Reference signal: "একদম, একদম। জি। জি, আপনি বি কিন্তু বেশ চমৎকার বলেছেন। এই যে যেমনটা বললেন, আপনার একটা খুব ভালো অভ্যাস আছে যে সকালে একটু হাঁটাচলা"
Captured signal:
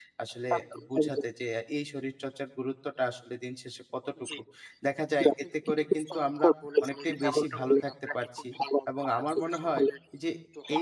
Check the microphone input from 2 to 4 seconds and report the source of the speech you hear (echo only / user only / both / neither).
user only